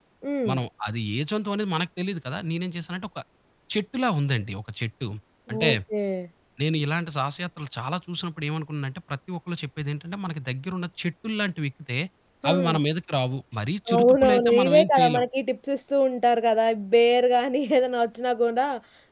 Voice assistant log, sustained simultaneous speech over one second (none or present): present